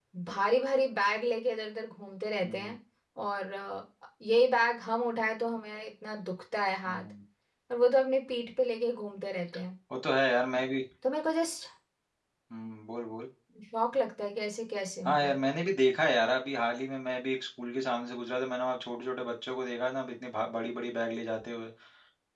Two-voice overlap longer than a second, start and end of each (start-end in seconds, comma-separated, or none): none